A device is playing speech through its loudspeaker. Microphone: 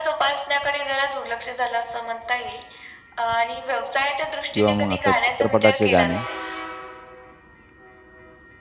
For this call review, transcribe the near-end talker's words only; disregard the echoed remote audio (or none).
किंवा मग आता चित्रपटाचे गाणे,